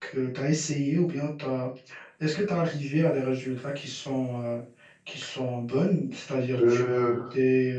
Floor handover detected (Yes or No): No